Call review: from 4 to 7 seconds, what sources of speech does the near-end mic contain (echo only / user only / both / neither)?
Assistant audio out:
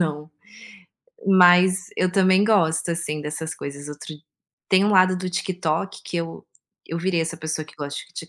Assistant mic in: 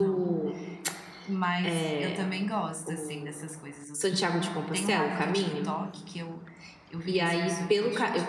both